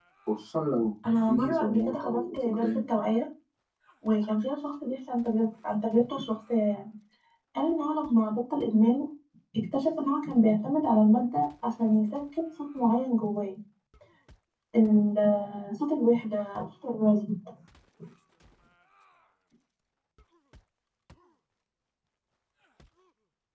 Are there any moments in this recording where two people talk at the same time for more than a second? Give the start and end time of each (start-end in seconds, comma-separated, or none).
1.3-2.8